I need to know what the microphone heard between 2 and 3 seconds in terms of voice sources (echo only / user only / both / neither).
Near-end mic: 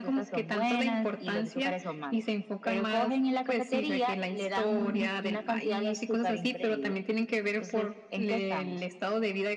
echo only